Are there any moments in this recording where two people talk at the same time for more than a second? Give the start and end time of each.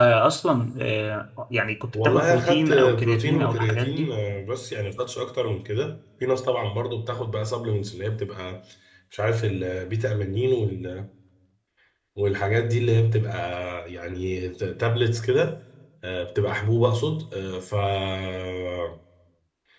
1.9-4.1

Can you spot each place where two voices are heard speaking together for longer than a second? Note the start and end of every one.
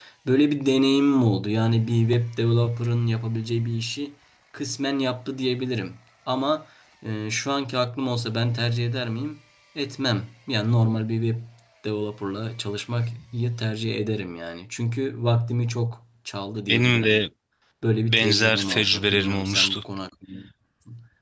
18.0-19.8

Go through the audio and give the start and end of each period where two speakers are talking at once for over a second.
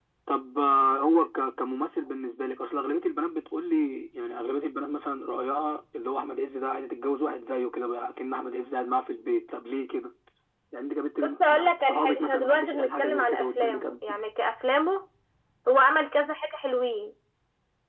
11.4-14.2

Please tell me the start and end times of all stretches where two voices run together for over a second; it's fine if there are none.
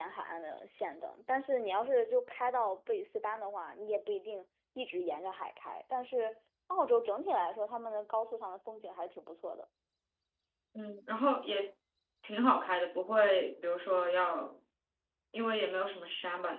none

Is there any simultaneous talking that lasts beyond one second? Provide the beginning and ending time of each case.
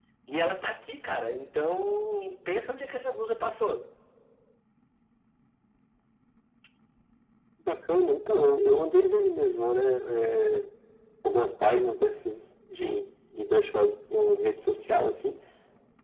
none

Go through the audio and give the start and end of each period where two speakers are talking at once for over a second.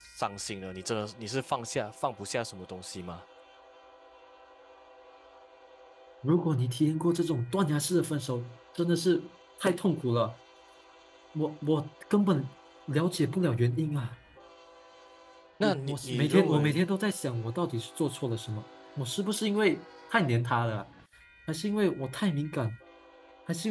15.6-16.8

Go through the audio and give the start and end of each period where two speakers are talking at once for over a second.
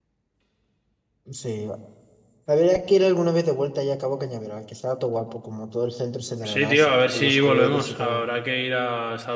6.5-8.2

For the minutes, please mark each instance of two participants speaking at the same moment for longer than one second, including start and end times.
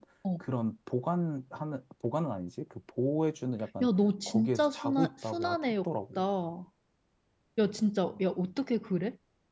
4.3-6.2

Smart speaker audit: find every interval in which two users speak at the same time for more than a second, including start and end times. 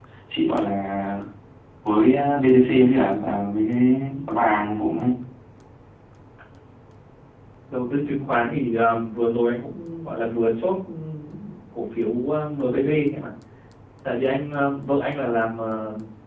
none

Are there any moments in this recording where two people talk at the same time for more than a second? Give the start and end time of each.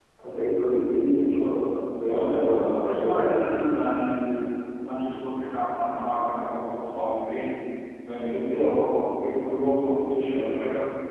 2.1-3.6

